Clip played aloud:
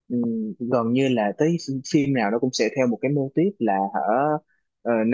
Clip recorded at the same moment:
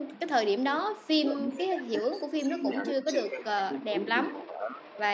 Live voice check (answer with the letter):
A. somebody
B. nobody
A